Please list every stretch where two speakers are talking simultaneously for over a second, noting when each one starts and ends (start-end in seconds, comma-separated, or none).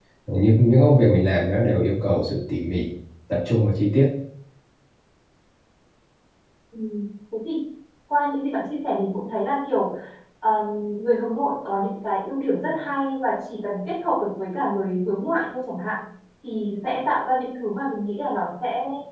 none